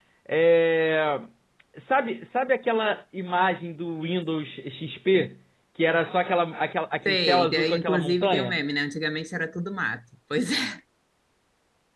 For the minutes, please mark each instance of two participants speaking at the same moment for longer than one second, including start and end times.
7.0-8.6

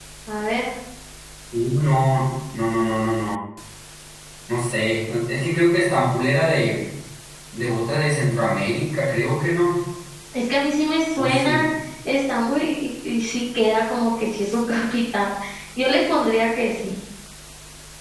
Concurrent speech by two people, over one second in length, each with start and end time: none

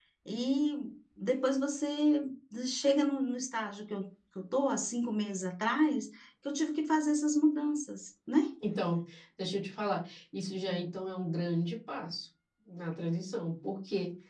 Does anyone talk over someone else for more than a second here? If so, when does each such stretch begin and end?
none

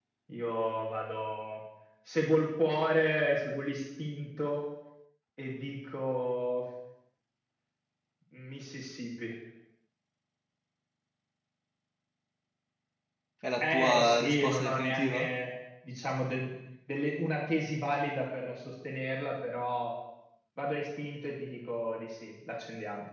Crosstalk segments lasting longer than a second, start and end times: 13.6-15.3

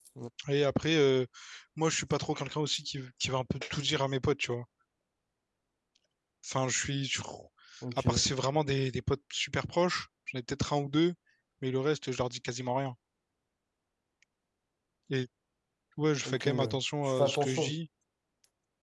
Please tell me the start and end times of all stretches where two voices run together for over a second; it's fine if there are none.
16.2-17.7

